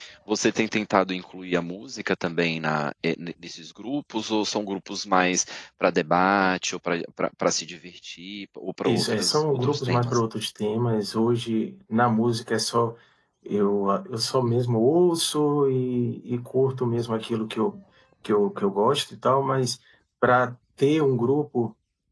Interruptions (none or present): present